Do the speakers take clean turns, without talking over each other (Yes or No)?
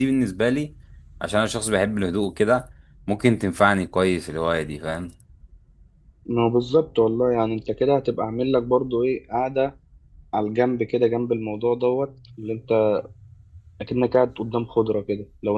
Yes